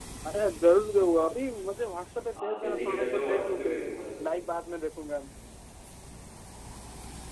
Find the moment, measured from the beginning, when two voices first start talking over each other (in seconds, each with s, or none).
2.3 s